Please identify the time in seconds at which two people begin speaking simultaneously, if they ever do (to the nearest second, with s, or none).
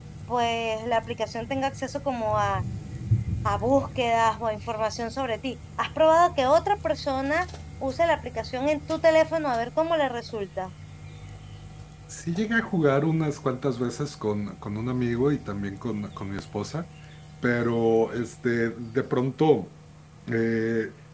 none